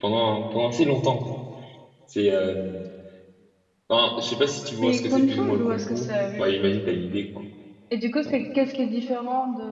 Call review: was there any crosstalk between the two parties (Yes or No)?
Yes